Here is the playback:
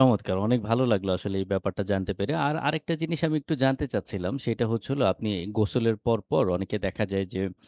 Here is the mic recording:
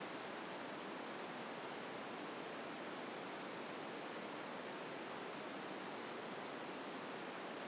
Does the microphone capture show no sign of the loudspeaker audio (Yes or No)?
Yes